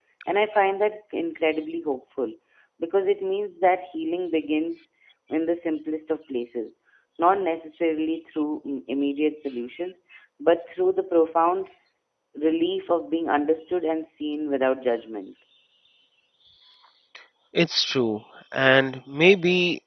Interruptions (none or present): none